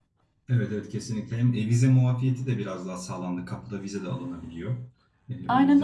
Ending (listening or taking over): taking over